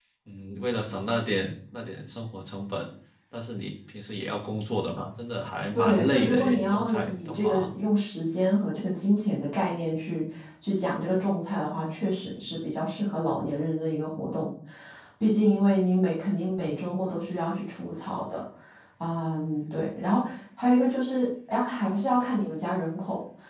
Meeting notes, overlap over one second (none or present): present